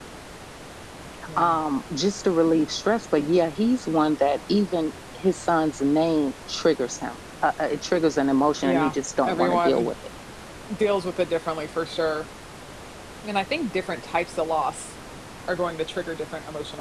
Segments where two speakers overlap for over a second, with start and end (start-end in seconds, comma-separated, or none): 8.6-9.9